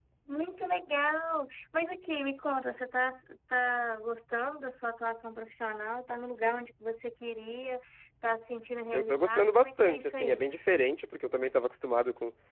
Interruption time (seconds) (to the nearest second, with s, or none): 9 s